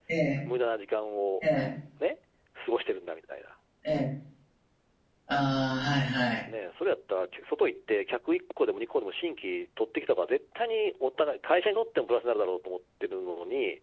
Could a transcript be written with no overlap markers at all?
Yes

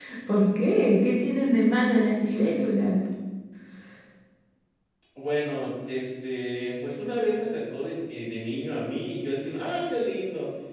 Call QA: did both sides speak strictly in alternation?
Yes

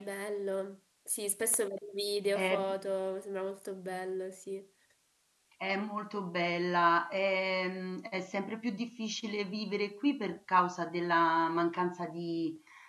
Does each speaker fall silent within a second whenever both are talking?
Yes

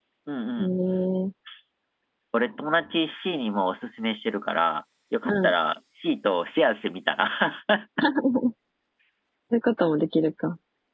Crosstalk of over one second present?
No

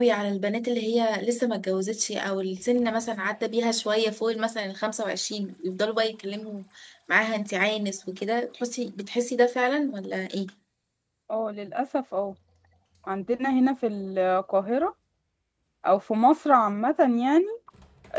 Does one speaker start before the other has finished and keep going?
No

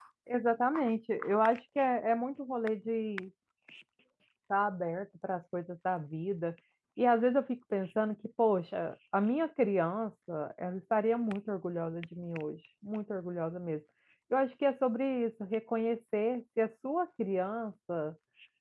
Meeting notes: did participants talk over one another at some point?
No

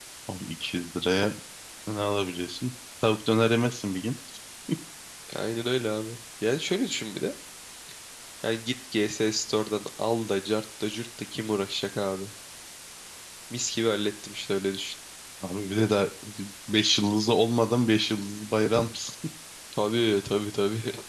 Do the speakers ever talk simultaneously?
No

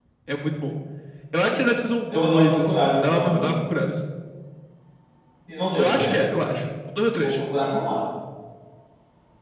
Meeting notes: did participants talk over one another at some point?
Yes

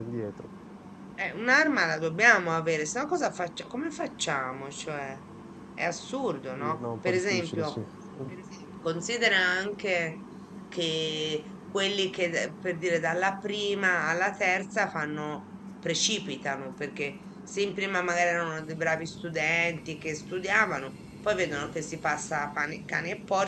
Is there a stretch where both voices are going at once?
Yes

